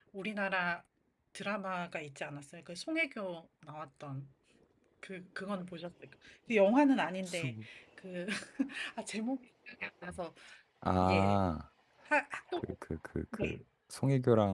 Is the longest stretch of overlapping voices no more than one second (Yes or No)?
Yes